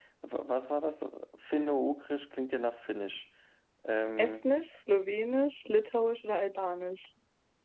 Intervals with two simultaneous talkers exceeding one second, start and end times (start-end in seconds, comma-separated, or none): none